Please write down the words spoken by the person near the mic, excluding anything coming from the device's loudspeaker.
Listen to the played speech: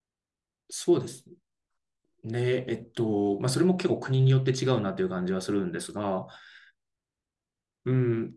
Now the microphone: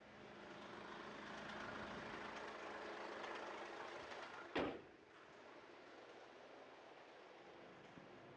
none

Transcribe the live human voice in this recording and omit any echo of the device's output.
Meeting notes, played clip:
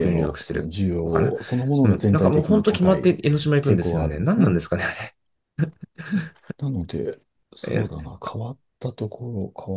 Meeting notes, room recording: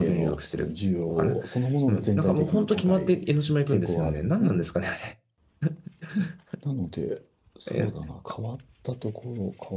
none

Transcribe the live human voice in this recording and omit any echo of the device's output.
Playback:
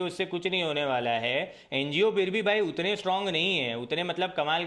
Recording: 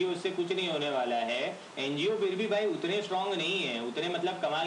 none

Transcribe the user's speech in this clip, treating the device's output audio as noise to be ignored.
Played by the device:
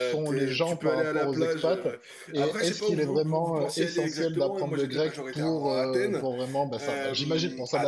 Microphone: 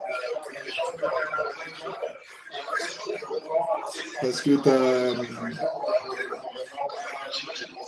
parce que t'as hum,

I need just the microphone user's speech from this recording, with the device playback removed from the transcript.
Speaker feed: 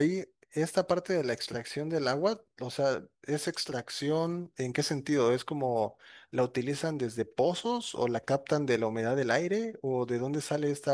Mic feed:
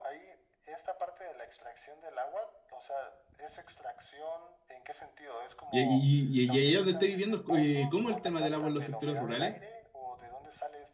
y, y, y, y allá donde estoy viviendo, eh, ¿cómo es el tema del agua en los sectores rurales?

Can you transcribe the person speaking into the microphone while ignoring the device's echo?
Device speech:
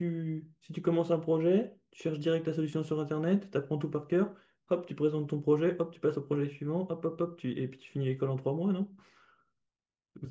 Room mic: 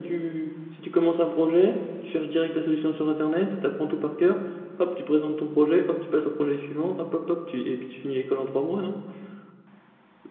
none

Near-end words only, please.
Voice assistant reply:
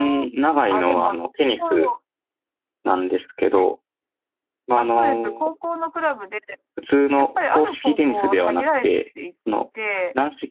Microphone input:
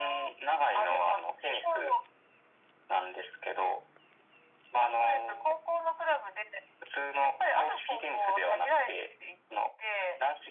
none

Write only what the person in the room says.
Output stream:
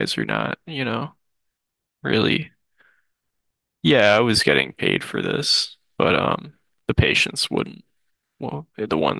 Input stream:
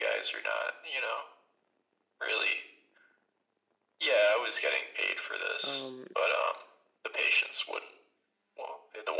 Um,

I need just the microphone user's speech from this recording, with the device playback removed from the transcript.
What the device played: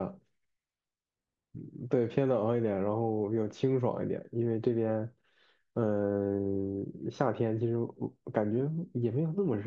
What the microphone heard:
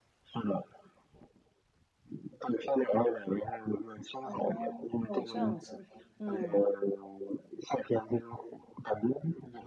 哦，这样子，嗯，

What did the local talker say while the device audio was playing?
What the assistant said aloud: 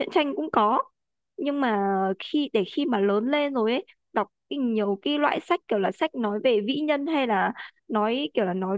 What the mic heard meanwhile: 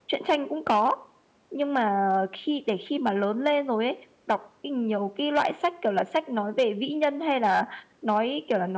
none

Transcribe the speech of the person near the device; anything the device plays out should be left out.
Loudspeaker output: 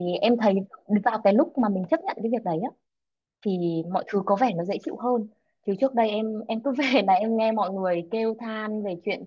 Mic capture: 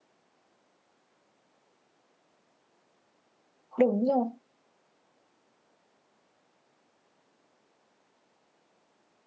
đúng rồi

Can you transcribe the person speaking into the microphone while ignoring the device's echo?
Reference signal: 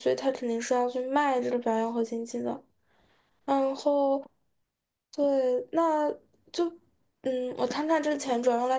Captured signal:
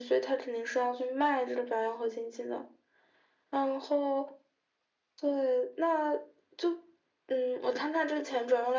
none

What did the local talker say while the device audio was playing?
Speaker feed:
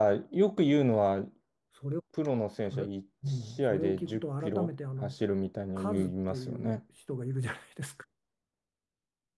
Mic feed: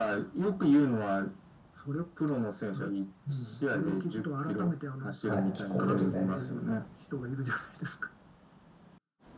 はい、気候ですね。

